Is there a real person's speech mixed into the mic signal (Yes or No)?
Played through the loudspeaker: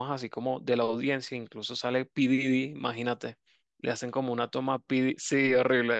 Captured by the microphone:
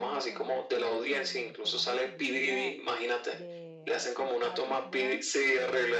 Yes